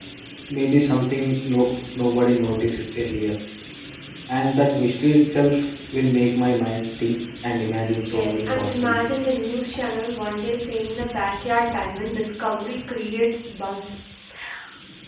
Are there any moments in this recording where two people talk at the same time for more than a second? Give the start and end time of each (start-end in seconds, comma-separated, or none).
7.9-9.2